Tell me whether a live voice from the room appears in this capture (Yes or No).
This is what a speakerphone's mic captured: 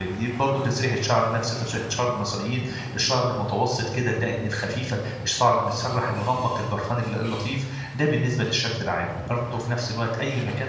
Yes